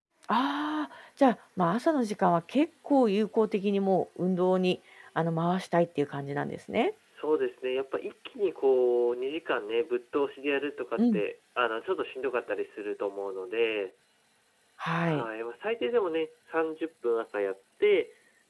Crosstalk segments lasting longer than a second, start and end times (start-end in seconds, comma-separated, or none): none